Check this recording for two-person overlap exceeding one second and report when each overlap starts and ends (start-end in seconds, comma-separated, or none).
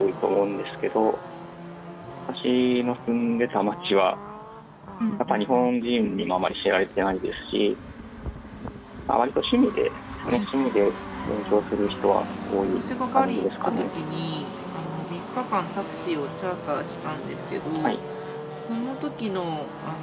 12.6-13.9